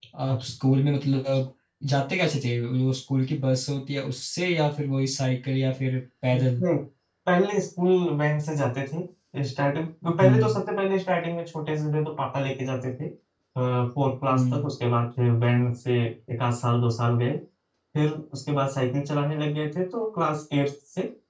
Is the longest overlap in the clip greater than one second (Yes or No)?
No